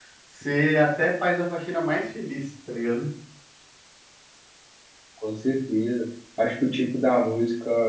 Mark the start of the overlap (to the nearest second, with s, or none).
none